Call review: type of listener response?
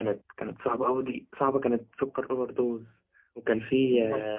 listening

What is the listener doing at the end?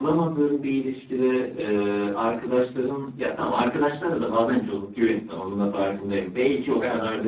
listening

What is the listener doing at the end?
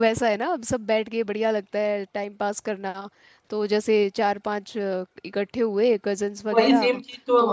taking over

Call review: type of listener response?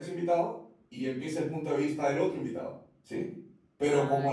listening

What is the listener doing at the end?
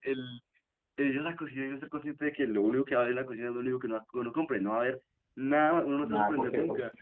taking over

